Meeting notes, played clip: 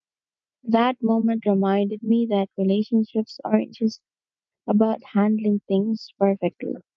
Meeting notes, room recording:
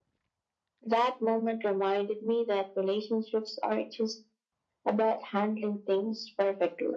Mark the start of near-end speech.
none

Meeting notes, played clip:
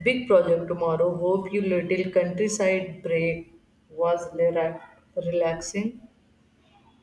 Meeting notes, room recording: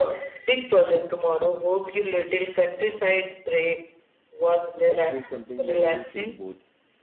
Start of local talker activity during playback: 4.8 s

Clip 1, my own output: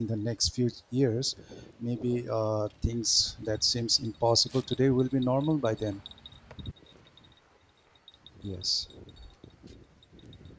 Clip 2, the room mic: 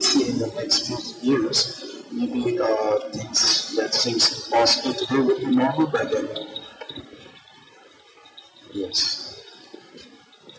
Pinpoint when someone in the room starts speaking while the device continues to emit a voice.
none

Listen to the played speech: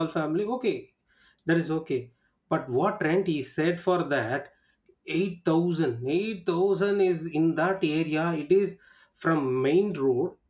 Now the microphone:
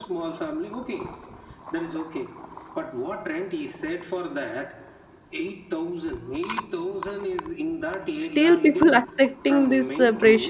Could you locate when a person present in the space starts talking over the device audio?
8.1 s

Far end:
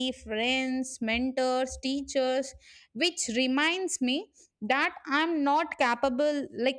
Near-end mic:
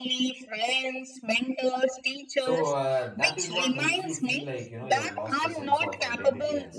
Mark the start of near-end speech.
2.3 s

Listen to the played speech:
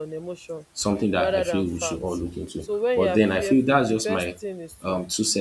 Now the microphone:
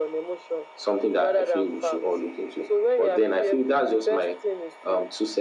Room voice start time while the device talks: none

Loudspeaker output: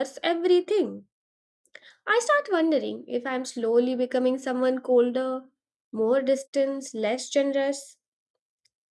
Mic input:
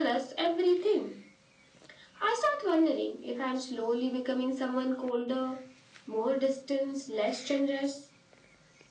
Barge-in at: none

